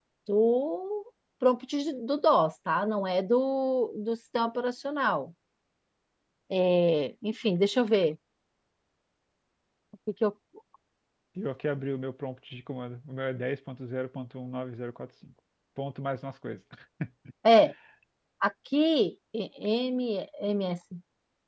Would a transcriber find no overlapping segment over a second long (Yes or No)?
Yes